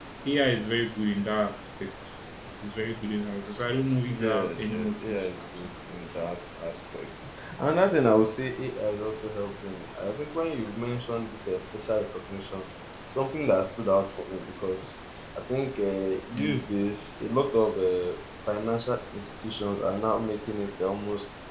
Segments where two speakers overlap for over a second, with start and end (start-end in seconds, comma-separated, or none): 4.1-5.7